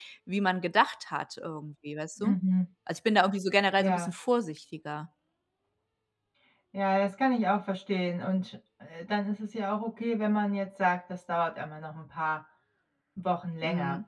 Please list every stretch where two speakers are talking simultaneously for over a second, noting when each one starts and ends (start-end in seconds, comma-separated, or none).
none